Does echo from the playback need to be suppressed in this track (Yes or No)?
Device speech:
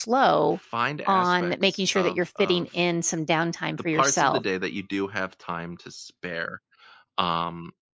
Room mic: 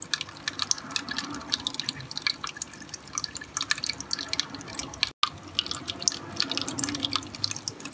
No